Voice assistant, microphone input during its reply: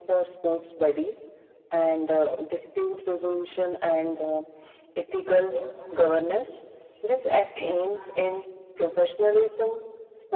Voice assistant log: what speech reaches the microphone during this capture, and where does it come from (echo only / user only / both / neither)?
echo only